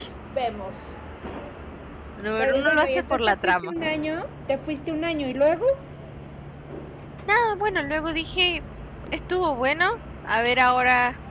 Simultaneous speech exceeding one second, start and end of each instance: 2.4-3.7

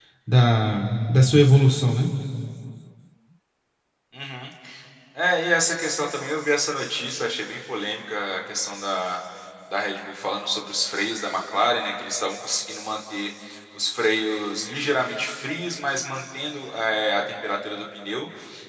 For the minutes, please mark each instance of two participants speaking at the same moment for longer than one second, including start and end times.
none

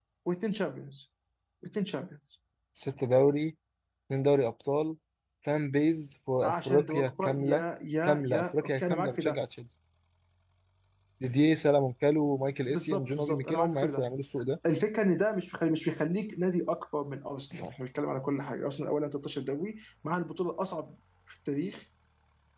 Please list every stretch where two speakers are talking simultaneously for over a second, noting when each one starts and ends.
6.4-7.6, 8.0-9.4, 12.7-14.1

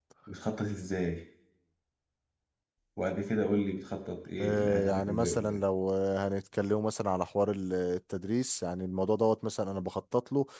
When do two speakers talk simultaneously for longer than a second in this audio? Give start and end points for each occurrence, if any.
4.4-5.6

